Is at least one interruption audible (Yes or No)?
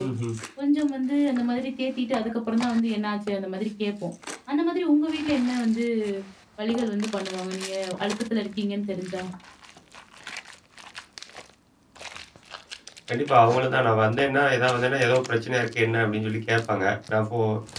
No